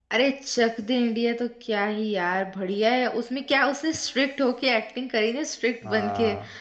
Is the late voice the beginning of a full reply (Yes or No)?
No